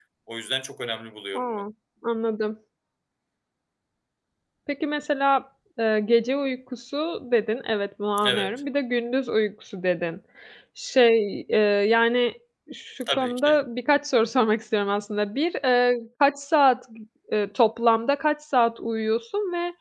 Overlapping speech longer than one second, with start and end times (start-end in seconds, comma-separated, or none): none